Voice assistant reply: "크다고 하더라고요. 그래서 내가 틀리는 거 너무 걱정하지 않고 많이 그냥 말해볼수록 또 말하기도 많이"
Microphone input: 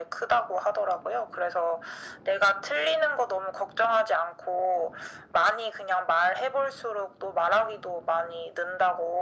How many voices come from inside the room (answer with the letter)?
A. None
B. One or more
A